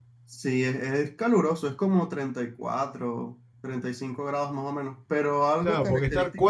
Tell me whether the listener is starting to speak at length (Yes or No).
Yes